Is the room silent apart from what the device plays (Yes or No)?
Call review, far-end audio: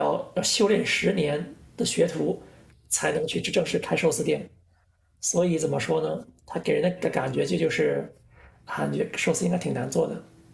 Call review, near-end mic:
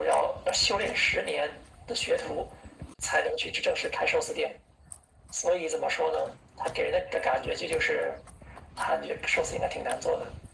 Yes